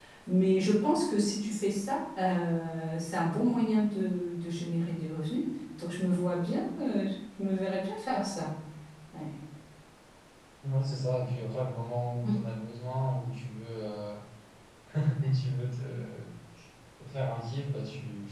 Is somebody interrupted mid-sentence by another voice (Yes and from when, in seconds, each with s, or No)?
No